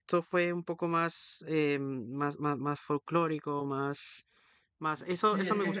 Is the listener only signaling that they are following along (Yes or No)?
No